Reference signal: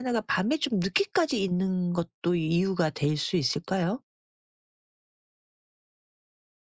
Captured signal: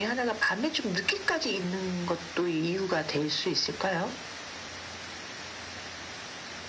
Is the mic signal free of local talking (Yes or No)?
Yes